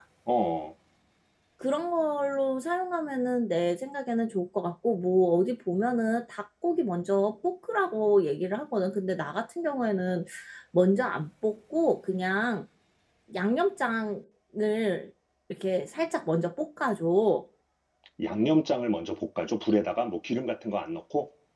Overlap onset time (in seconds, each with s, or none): none